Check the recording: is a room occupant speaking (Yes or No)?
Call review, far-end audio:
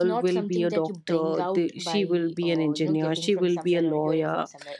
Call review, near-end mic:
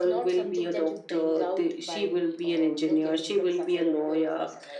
No